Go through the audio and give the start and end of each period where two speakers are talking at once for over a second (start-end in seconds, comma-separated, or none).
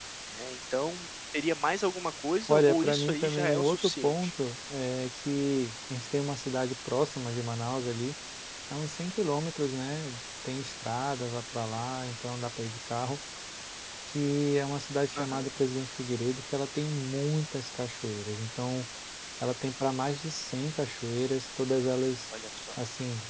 2.5-4.3